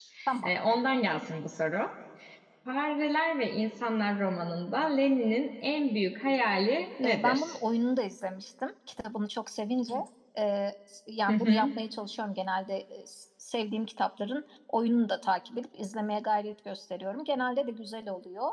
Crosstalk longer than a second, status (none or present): none